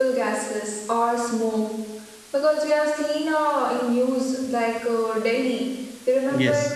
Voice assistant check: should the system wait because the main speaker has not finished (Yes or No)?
Yes